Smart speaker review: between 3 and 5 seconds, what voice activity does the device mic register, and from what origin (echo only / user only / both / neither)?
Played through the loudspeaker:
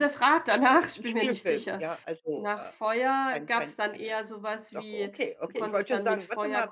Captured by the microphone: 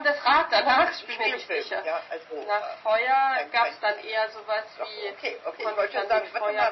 echo only